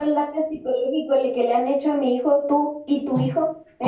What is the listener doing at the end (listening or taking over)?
taking over